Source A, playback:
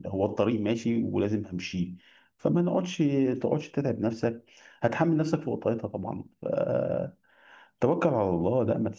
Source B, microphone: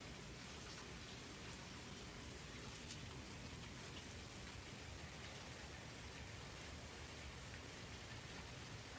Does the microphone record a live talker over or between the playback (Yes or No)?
No